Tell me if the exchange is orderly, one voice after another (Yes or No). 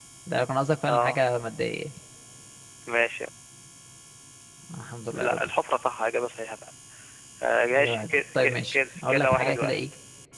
No